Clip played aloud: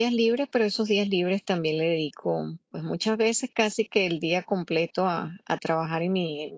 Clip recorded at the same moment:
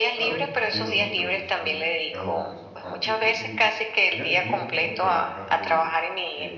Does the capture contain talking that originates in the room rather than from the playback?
Yes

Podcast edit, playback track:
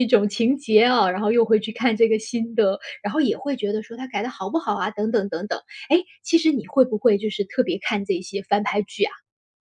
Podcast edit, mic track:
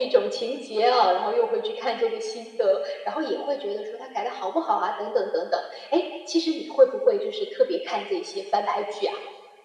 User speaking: No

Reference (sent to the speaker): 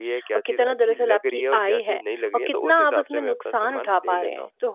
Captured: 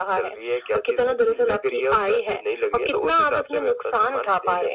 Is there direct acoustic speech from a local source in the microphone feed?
No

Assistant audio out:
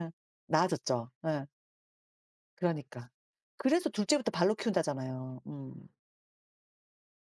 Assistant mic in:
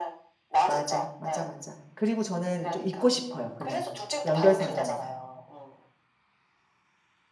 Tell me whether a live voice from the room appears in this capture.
Yes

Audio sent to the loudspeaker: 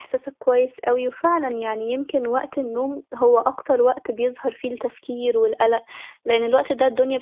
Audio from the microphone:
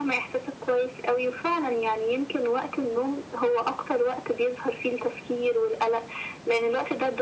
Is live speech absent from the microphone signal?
Yes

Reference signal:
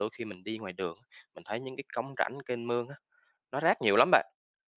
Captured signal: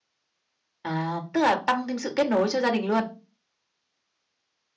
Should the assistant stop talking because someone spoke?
Yes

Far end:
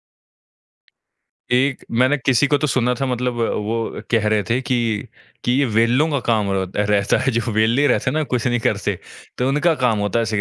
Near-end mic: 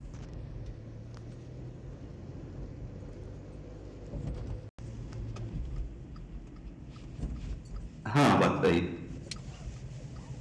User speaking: Yes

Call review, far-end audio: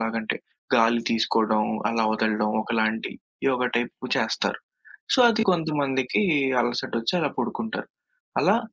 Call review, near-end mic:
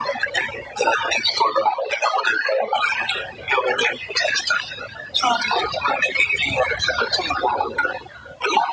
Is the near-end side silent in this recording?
Yes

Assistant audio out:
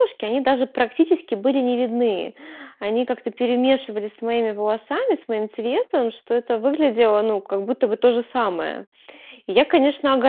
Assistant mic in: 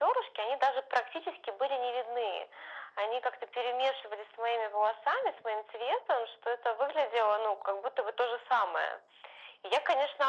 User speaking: No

